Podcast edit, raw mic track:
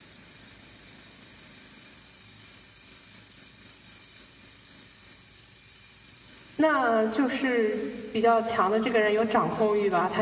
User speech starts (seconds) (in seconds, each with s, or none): 6.6 s